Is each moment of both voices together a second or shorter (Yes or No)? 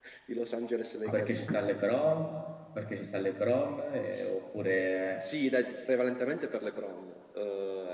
Yes